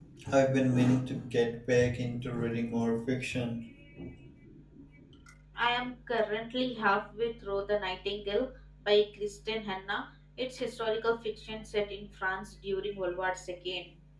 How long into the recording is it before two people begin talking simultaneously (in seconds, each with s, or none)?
none